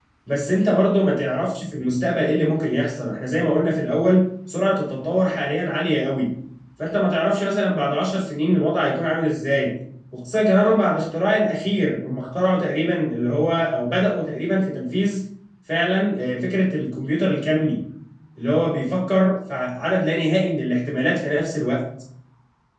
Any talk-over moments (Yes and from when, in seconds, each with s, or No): No